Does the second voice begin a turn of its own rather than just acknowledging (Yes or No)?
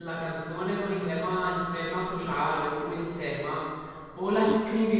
No